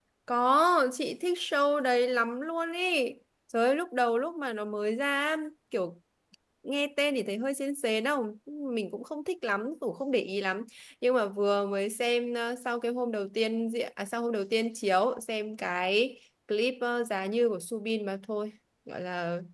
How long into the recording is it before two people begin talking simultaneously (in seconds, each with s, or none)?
none